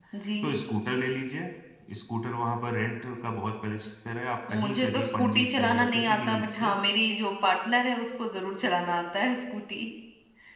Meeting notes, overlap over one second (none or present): present